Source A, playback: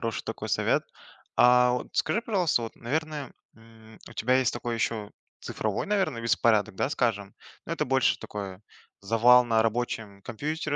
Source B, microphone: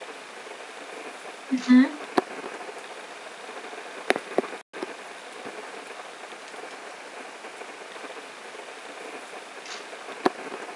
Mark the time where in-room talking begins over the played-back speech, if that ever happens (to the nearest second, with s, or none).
2 s